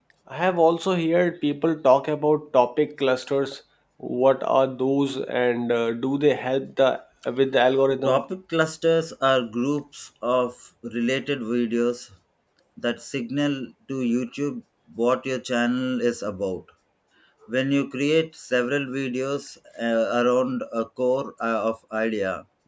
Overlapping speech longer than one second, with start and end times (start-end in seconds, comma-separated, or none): none